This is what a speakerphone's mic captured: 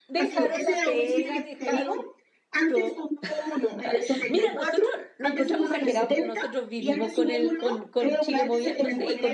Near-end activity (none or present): present